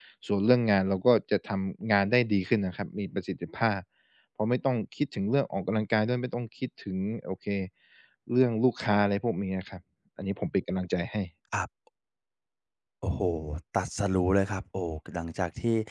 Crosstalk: none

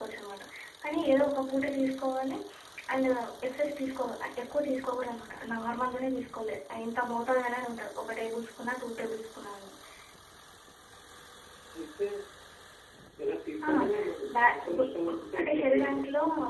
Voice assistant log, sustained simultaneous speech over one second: present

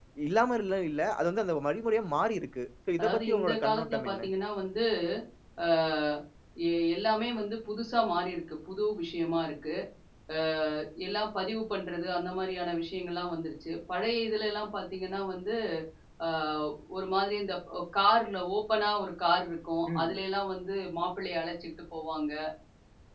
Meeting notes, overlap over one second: present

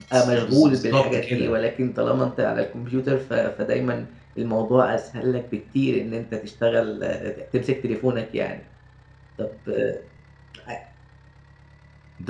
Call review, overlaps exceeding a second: present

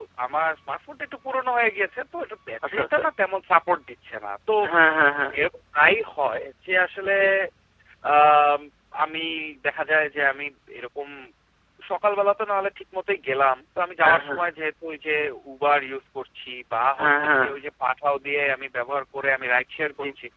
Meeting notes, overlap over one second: none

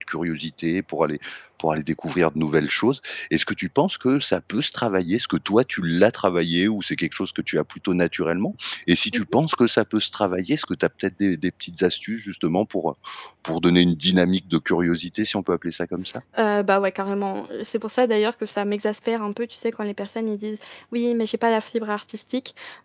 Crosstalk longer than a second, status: none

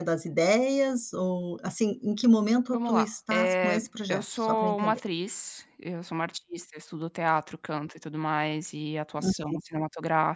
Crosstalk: present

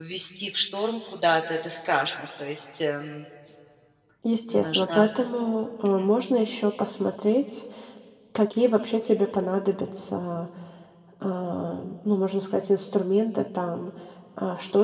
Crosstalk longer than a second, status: none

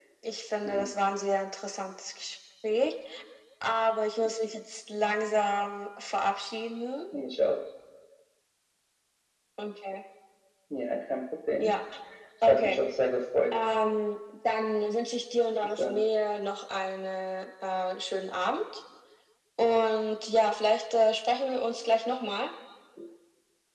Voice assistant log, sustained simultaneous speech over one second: none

